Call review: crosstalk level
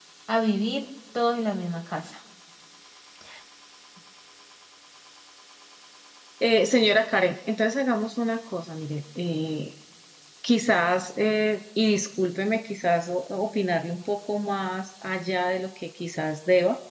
none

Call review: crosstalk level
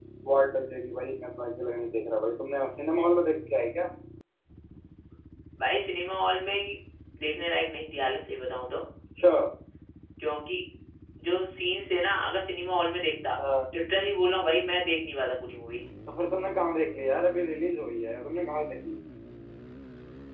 none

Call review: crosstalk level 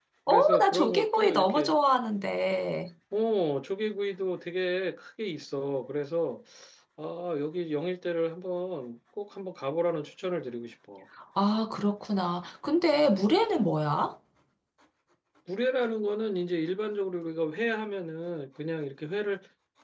present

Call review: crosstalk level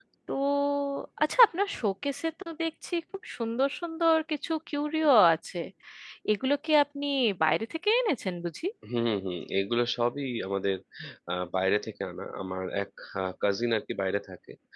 none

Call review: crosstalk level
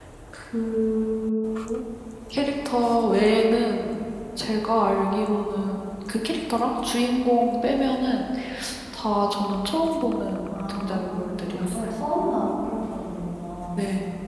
present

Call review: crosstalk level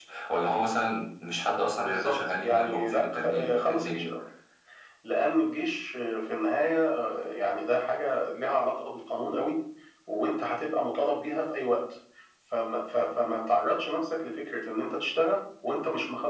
present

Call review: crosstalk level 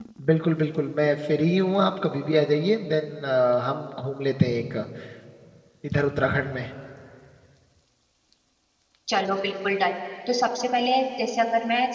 none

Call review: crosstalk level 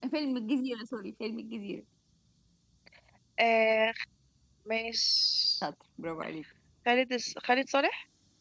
none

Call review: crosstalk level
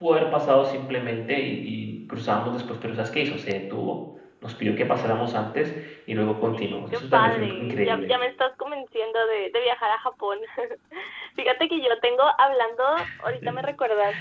present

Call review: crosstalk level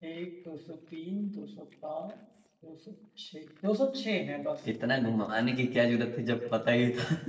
none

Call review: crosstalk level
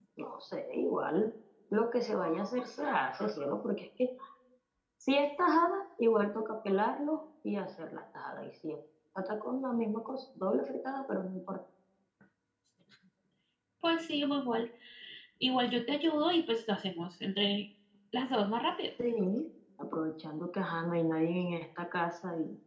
none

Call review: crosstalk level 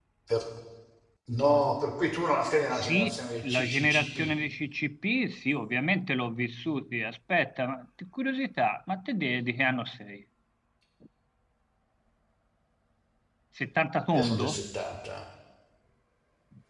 present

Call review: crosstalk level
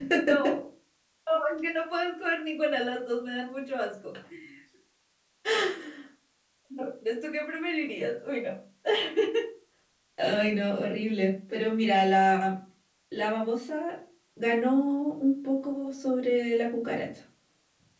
none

